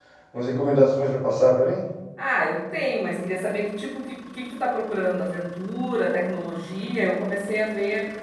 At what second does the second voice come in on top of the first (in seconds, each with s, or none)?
none